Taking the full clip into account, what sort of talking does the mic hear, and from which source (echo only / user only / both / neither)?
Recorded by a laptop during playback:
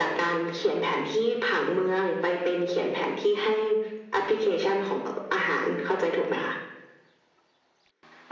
echo only